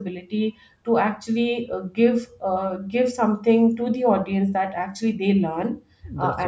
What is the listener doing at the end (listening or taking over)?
listening